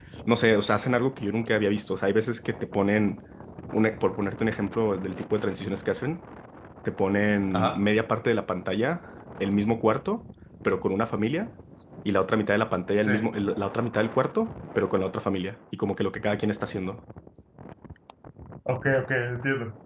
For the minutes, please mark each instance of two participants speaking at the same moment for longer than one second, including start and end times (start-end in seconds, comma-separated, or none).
none